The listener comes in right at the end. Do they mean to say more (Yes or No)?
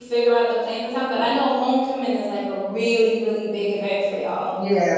Yes